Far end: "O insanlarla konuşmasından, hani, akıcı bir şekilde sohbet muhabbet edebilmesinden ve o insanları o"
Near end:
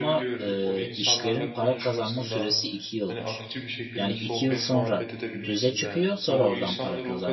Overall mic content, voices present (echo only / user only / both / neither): both